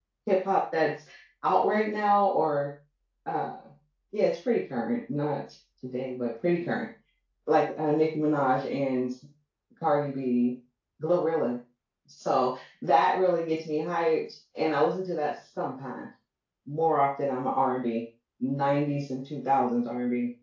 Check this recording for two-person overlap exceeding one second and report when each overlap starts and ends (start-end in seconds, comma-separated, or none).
none